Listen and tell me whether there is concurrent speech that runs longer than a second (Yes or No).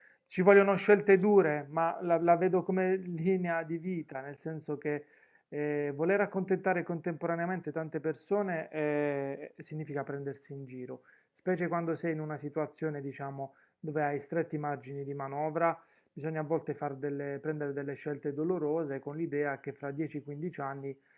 No